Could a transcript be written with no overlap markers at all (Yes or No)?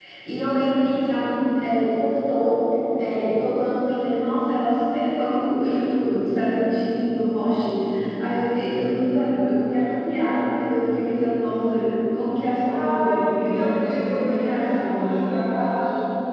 No